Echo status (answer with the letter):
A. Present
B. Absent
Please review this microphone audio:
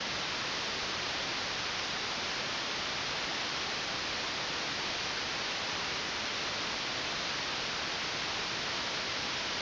B